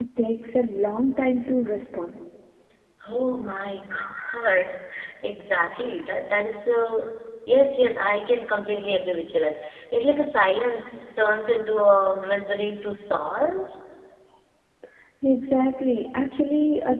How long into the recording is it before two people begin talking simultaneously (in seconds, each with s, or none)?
none